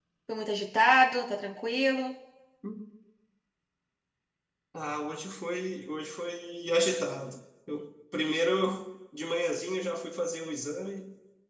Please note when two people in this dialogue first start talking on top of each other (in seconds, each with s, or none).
none